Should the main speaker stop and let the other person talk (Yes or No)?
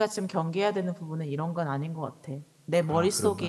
No